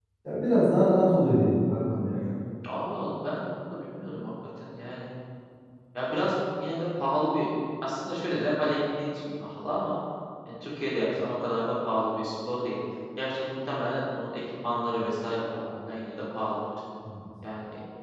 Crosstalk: none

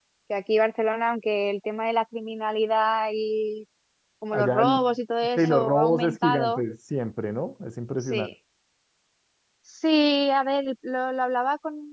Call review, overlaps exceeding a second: present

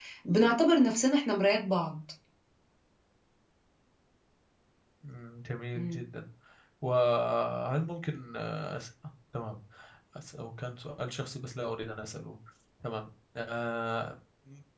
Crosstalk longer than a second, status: none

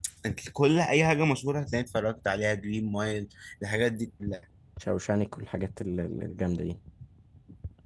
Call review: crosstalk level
none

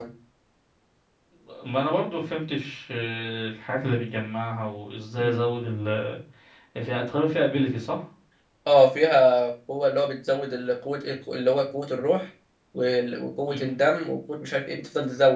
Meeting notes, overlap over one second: none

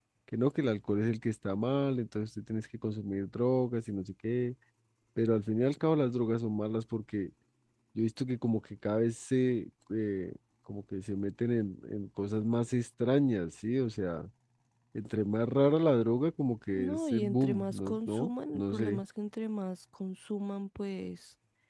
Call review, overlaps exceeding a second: present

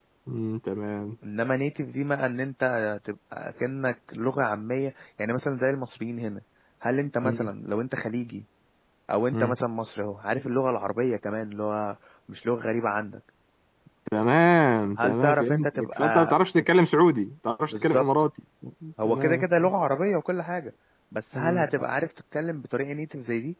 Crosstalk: present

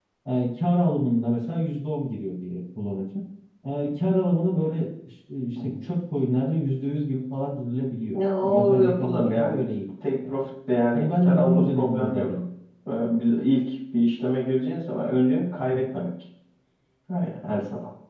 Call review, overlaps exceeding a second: present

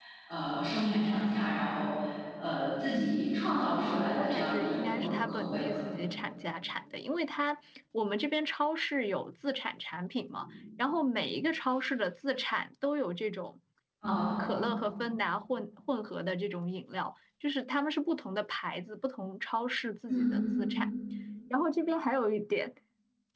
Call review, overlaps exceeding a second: present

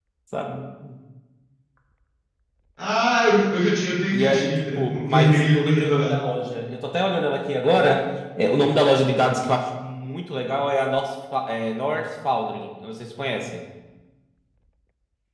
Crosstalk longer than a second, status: present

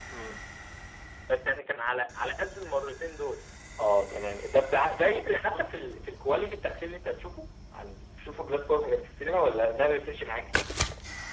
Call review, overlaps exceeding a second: none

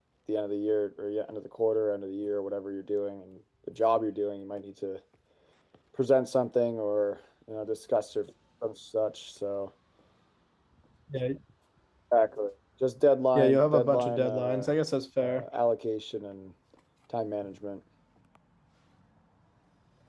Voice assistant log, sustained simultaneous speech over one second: present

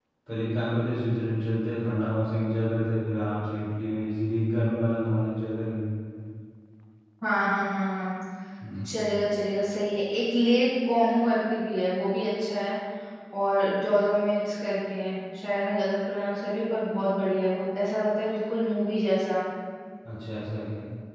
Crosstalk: none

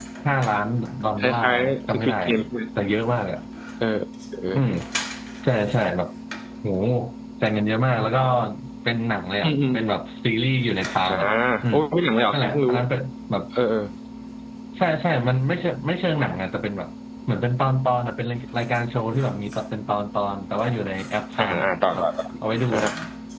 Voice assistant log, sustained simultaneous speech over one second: present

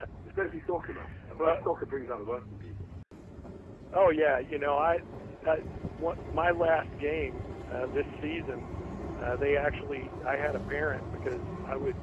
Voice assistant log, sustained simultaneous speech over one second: none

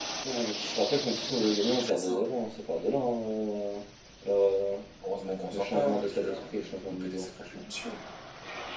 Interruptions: present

